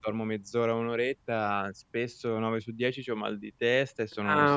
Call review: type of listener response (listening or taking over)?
taking over